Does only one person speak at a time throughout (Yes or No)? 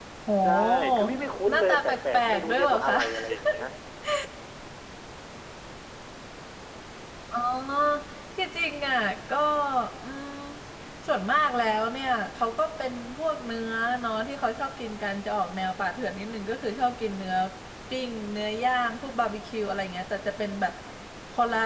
No